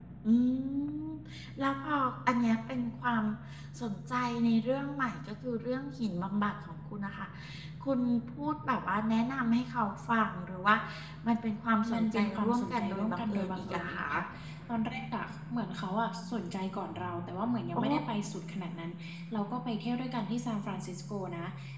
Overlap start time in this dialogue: 11.9 s

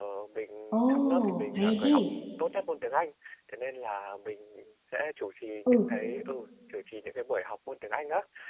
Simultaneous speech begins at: 0.7 s

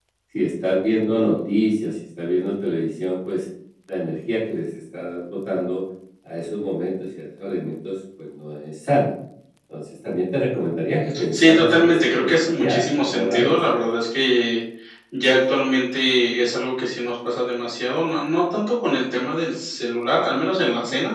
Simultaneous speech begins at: 11.1 s

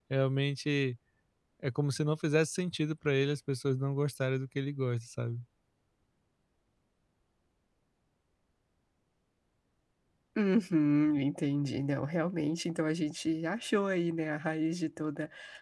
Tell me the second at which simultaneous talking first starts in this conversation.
none

